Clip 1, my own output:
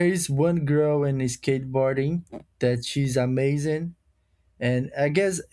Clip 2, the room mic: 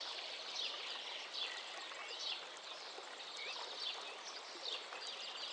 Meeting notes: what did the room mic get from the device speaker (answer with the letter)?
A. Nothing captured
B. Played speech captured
A